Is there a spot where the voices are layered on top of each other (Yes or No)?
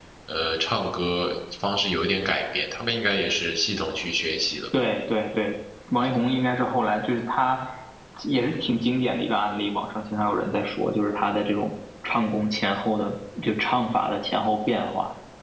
No